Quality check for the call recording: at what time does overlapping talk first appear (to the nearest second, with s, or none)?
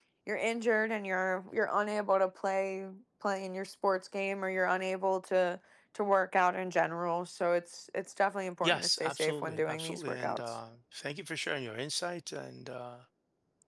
9 s